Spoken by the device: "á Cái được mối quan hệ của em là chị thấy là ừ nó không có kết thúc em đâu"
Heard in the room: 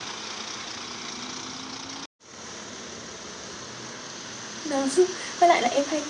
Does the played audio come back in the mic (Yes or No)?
No